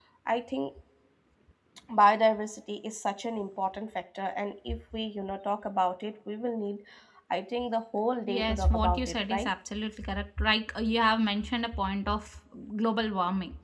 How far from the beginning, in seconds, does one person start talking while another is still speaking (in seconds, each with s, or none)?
8.3 s